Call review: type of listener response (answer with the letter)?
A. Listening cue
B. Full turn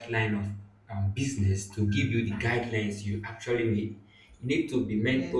A